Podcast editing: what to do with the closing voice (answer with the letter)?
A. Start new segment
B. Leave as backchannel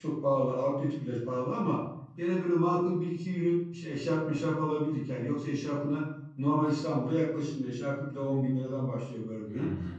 B